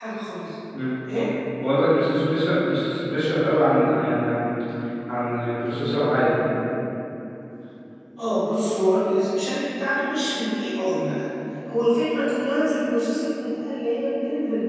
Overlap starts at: none

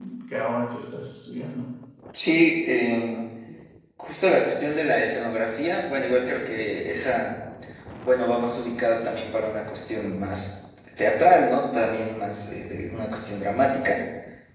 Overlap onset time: none

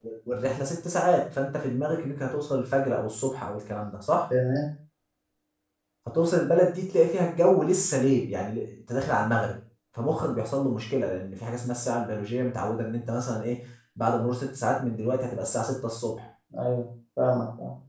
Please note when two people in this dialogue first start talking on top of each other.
none

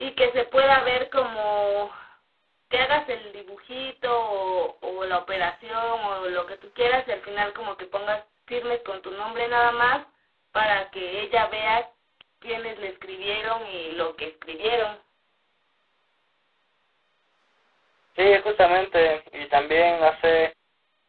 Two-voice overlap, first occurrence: none

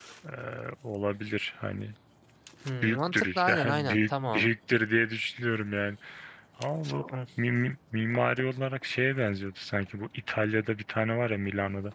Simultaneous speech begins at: 3 s

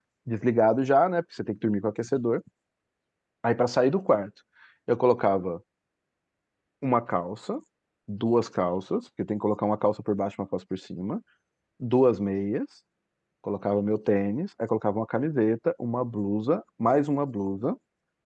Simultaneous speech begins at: none

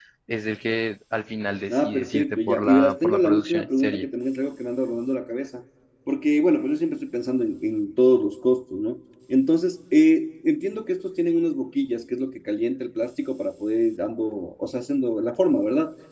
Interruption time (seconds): 2 s

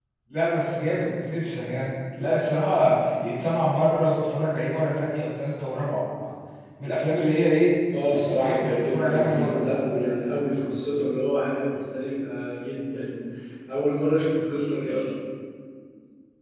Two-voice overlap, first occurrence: 8 s

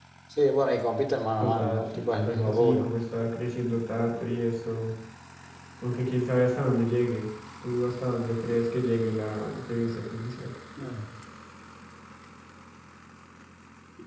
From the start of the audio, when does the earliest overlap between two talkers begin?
1 s

